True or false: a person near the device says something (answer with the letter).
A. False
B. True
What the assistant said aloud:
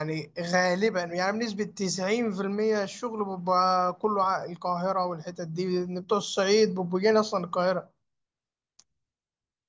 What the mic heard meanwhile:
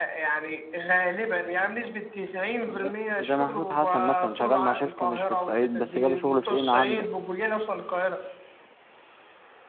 B